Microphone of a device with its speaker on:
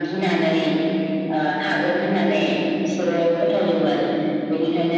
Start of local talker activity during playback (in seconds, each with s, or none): none